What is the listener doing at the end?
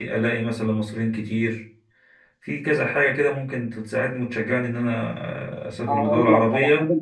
taking over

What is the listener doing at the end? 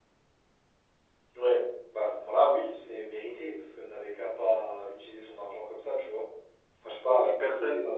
taking over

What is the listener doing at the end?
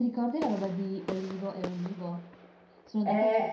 listening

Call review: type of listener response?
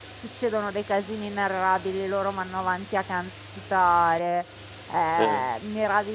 listening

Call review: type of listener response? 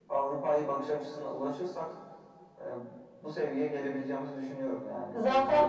taking over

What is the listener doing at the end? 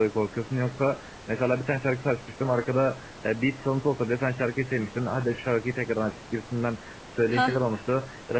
listening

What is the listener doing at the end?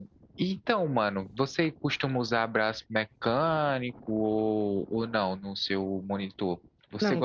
taking over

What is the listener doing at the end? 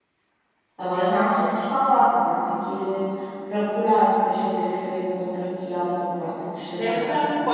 taking over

